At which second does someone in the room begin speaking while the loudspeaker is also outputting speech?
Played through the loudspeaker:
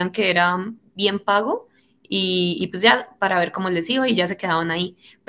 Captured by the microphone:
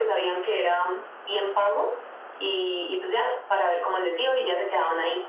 none

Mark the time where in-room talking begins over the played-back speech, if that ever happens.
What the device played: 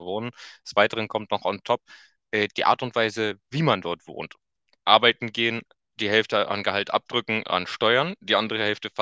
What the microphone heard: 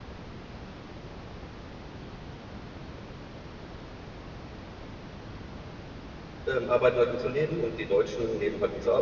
6.5 s

